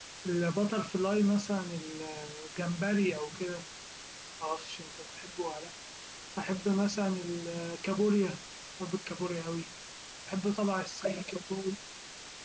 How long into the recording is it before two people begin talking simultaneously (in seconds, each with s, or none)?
none